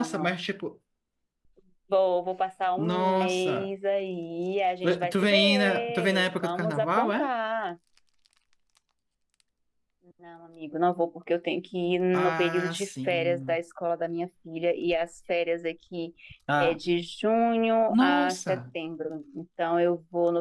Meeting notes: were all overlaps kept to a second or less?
No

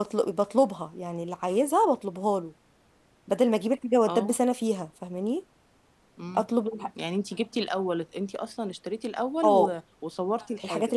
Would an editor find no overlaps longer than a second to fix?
Yes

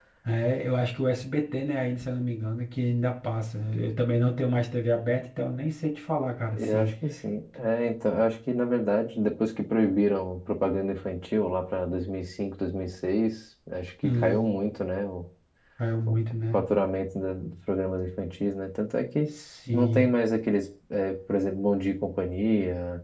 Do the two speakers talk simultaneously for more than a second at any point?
No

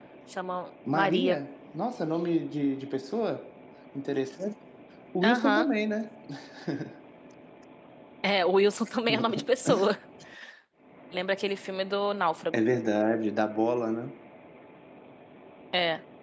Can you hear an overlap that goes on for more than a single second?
No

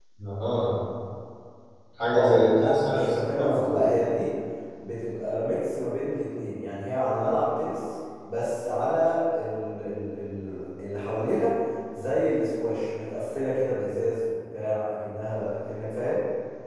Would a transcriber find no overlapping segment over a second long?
No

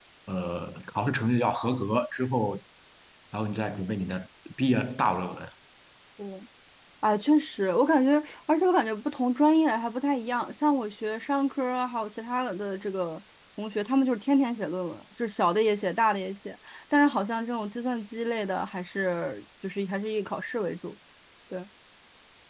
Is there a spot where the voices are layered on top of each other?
No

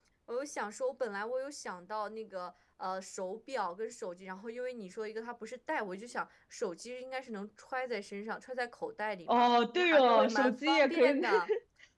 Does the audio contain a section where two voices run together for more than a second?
Yes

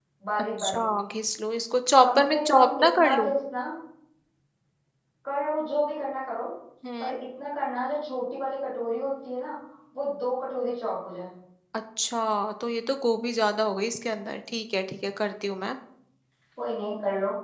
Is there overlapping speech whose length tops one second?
Yes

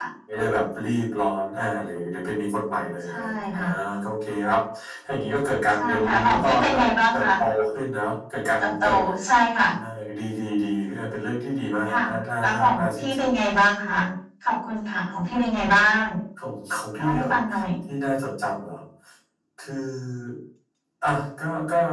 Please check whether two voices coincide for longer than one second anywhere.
Yes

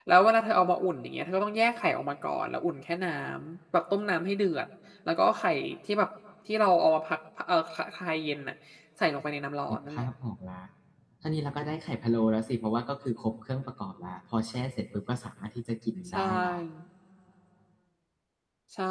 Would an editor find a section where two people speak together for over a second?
No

